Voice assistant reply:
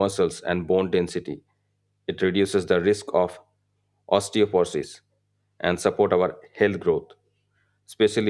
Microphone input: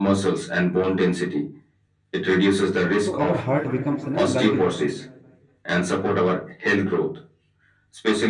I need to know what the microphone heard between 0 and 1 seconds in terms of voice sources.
echo only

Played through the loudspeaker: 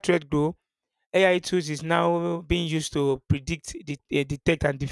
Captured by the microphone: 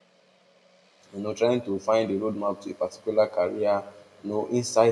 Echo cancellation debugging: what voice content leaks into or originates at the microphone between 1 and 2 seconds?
user only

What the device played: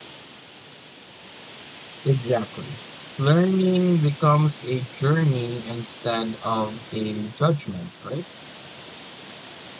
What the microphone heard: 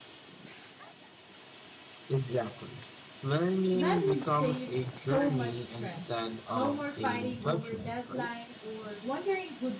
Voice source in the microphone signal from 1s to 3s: echo only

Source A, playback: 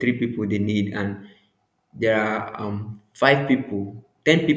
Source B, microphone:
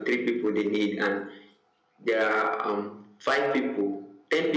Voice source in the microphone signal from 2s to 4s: echo only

